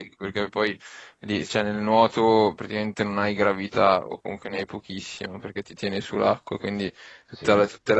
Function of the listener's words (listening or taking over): listening